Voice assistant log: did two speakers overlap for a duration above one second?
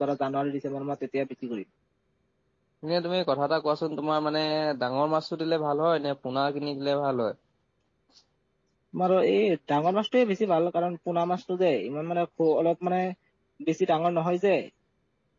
No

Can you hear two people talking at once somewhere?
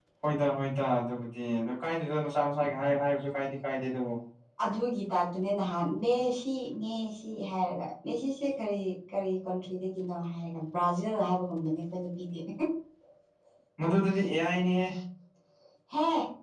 No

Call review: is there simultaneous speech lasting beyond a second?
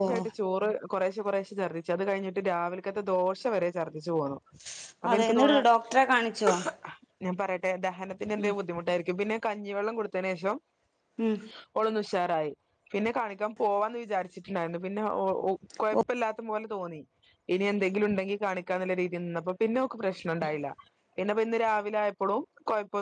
No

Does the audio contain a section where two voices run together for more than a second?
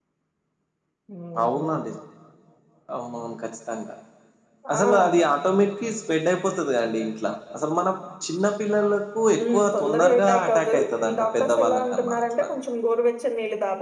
Yes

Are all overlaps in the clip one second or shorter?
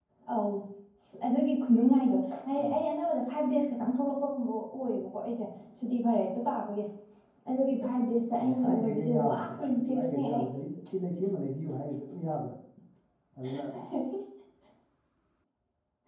No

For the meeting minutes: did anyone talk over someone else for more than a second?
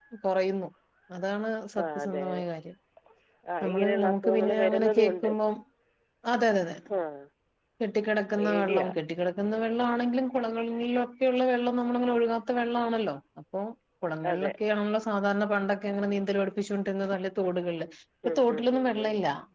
Yes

